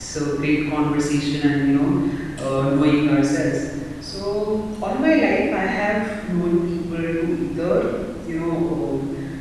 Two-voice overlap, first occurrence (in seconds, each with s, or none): none